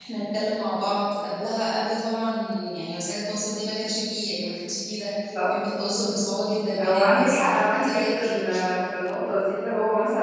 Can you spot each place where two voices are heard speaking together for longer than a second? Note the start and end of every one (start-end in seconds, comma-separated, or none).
6.8-8.4